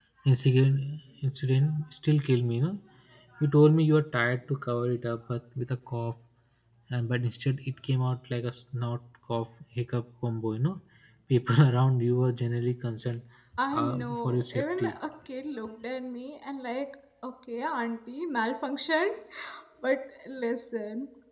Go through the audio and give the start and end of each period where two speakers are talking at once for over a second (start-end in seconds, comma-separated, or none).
13.7-15.0